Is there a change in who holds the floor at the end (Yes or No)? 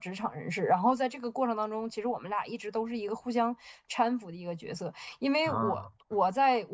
No